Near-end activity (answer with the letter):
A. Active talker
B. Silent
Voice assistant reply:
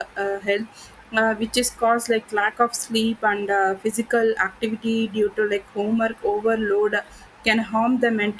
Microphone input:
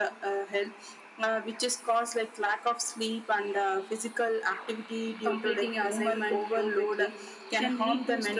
A